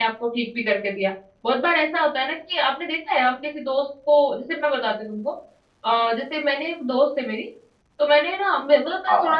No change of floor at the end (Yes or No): Yes